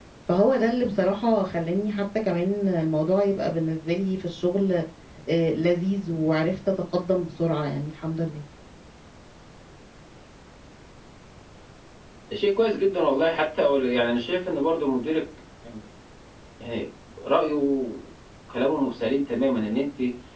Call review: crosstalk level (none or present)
none